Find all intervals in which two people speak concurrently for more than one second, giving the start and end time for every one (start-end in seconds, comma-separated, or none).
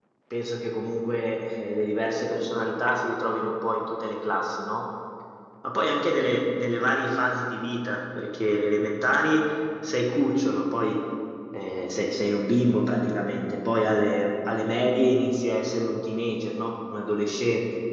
none